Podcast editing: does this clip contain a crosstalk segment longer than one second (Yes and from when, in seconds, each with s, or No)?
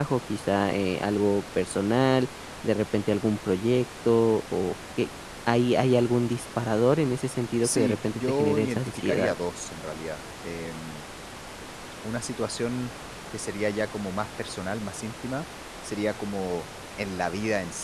Yes, from 7.6 s